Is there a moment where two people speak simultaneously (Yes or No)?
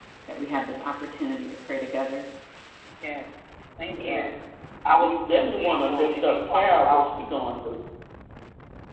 Yes